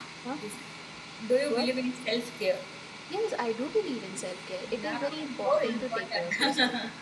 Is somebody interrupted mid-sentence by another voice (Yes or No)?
Yes